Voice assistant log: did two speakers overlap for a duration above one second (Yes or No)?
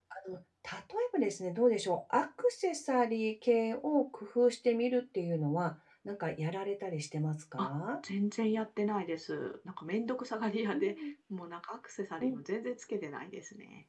No